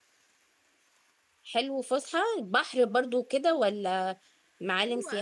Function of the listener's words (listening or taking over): taking over